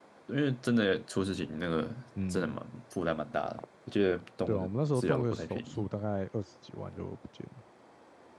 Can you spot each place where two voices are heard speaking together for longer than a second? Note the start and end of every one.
4.5-5.8

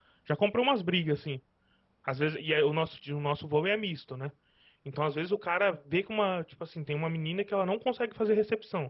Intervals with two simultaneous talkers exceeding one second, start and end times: none

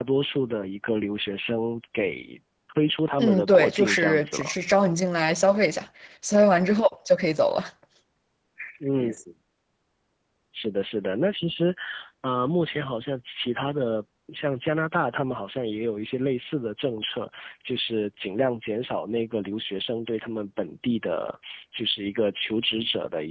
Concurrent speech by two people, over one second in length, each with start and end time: 3.2-4.5

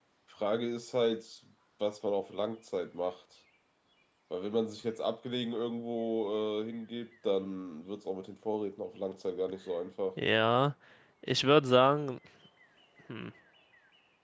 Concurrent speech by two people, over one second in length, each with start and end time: none

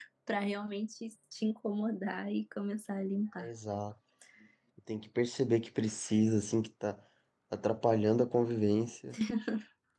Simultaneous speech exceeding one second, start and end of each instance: none

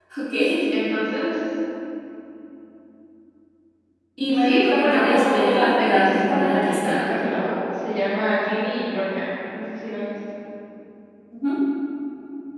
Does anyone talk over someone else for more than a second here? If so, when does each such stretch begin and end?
4.3-7.0

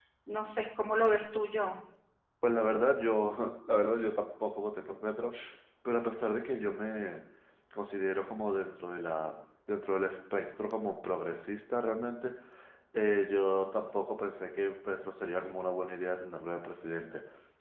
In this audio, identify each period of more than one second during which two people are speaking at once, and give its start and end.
none

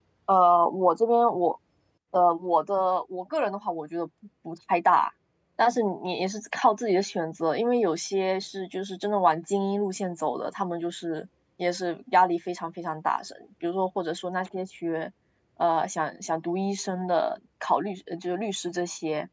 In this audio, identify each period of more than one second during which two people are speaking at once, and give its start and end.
none

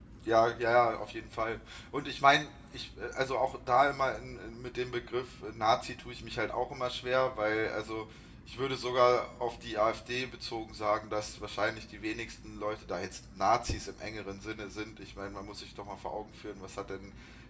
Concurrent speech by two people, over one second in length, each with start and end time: none

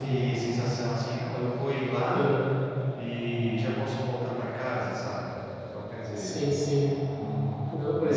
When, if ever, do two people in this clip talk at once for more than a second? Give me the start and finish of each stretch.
none

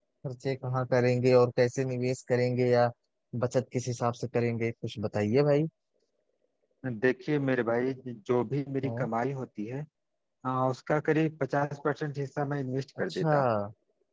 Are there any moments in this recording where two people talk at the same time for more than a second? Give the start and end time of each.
none

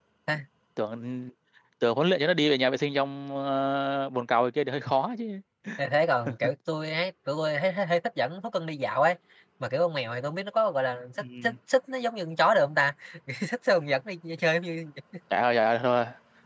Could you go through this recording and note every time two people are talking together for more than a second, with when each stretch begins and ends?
none

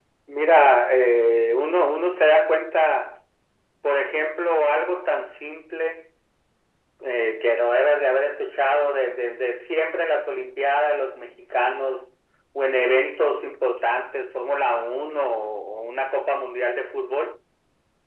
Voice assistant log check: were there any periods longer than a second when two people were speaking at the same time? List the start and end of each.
none

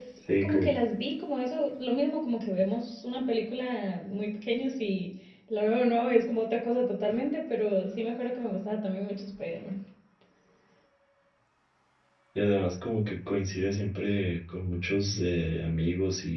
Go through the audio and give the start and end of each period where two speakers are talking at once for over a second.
none

